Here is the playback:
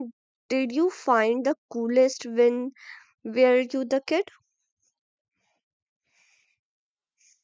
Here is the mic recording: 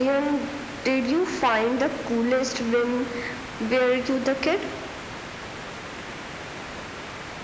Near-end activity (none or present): none